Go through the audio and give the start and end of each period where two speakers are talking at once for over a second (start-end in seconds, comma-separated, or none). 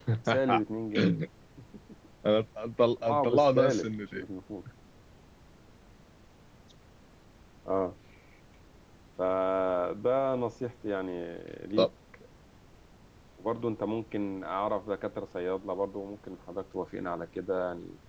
3.0-4.2